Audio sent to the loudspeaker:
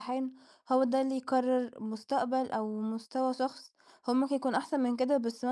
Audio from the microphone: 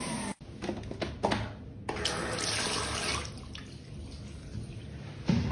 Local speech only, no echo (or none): none